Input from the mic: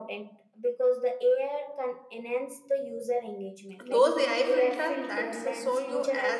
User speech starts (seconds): 3.8 s

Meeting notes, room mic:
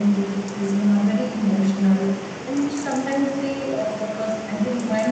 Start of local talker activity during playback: none

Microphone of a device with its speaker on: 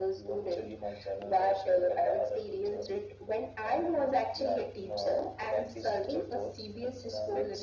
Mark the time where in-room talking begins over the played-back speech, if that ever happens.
none

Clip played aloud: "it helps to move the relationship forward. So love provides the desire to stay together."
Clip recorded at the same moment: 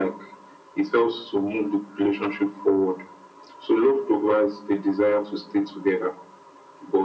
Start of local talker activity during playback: none

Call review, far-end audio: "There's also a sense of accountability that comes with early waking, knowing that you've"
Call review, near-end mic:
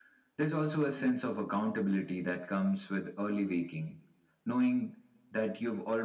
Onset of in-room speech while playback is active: none

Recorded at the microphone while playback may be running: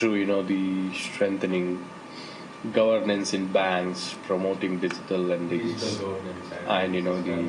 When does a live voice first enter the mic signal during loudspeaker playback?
5.5 s

